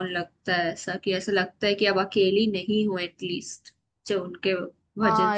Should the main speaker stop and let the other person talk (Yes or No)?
Yes